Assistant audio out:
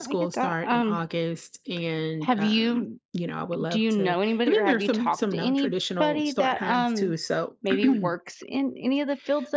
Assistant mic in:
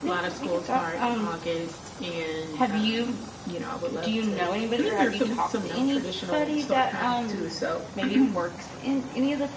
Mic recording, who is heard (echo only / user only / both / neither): echo only